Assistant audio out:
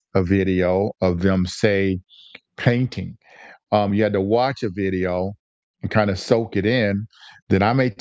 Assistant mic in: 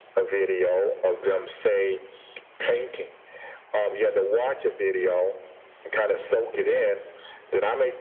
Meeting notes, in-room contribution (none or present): none